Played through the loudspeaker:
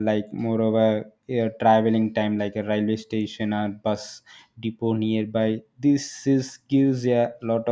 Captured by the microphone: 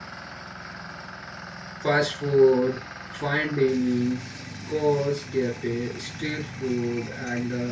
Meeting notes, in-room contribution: present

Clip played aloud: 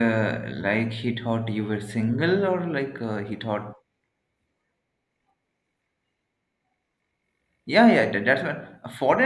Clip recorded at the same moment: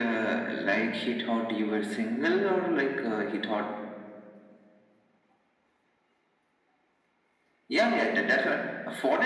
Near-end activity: none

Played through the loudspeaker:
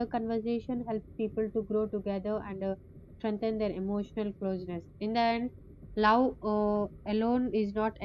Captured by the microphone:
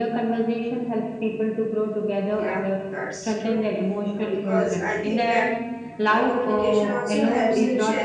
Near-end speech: present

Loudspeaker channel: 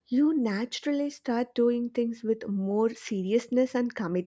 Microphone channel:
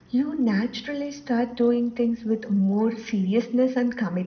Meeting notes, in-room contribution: none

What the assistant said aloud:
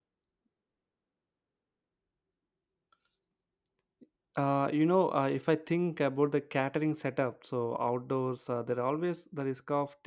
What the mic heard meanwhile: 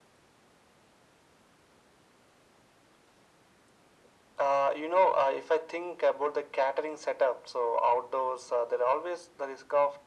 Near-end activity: none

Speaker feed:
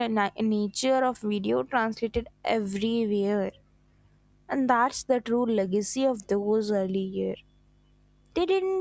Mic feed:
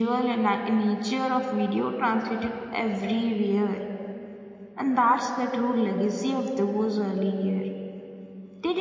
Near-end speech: none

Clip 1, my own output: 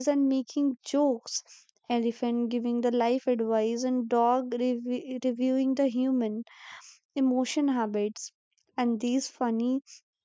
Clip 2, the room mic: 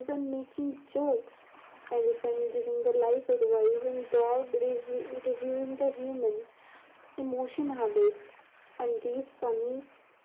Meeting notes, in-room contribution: none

